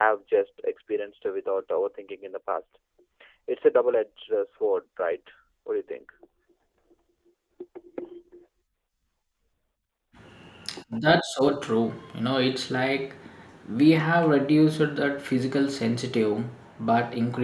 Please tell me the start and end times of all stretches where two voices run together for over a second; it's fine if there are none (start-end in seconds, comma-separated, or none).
none